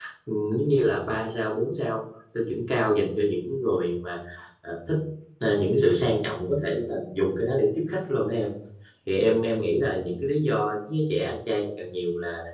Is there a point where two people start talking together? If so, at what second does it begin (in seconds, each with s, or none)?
none